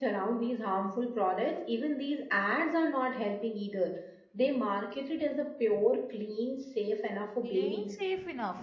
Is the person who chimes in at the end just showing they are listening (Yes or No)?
No